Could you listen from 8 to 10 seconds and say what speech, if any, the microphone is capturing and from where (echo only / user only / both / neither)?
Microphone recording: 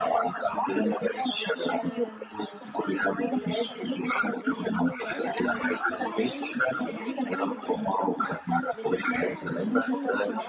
both